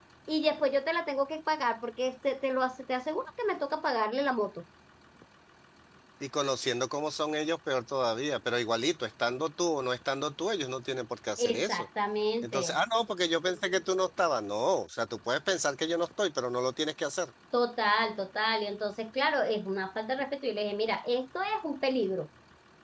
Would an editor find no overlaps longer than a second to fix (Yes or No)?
Yes